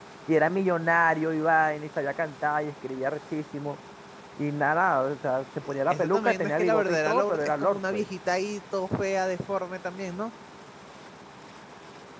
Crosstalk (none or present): present